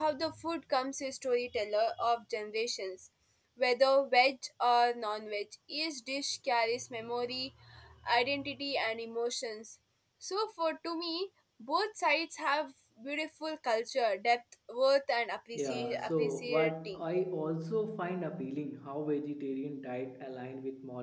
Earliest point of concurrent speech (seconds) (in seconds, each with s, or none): 15.6 s